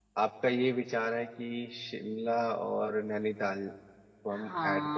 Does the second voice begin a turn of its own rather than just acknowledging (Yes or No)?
Yes